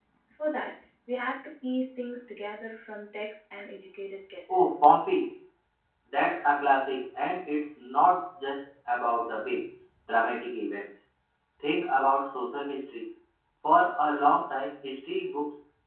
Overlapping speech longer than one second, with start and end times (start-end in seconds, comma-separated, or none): none